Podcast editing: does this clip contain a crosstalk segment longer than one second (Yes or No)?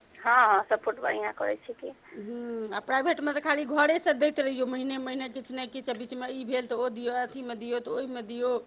No